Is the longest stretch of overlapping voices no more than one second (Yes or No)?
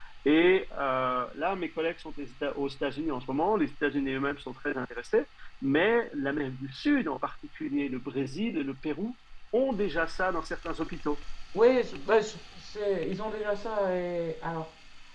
Yes